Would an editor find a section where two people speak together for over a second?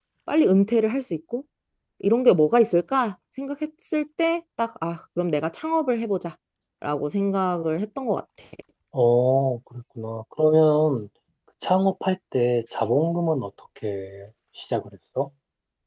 No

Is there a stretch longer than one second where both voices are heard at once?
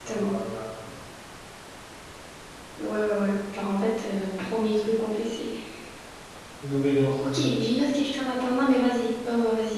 No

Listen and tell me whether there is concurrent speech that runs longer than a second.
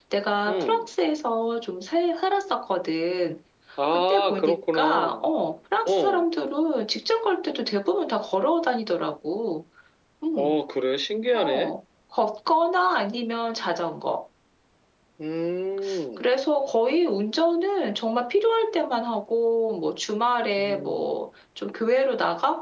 Yes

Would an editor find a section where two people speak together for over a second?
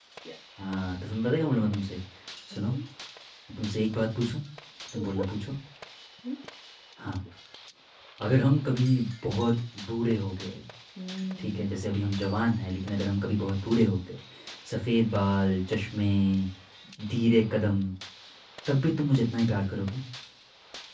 No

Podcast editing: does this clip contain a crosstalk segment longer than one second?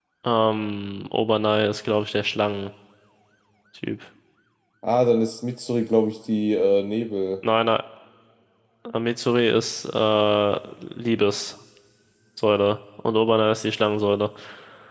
No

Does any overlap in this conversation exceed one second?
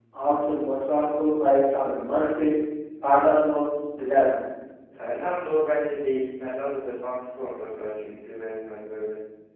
No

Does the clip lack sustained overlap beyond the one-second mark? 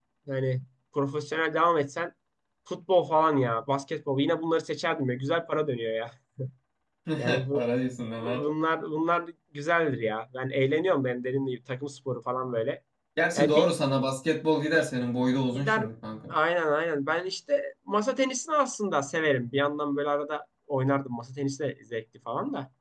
Yes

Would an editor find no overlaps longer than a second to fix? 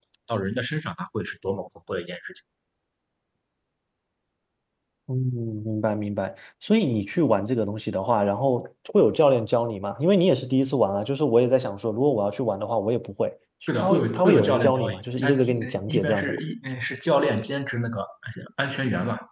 No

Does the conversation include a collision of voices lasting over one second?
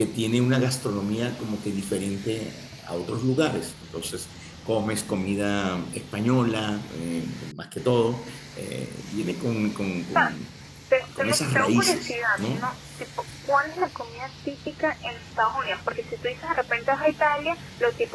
Yes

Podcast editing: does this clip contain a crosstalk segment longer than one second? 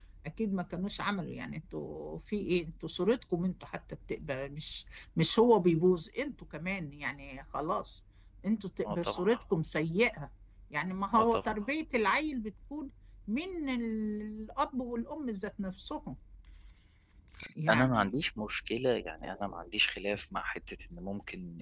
No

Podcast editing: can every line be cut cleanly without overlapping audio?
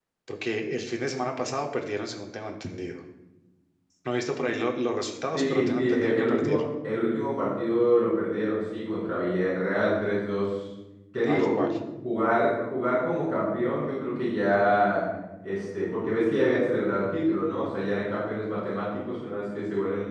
No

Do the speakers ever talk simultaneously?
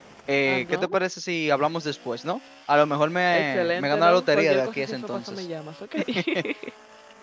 Yes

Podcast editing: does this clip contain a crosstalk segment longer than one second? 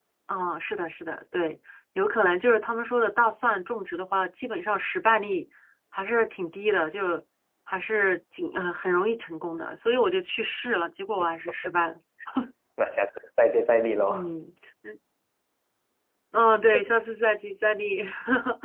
No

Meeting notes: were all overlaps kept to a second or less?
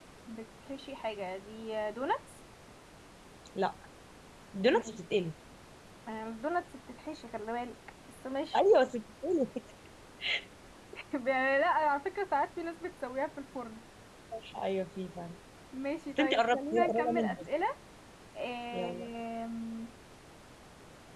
No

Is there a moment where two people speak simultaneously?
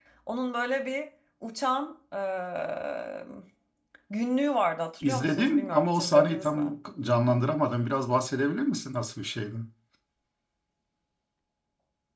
Yes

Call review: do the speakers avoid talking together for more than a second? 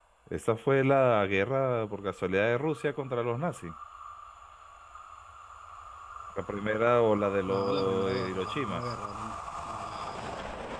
No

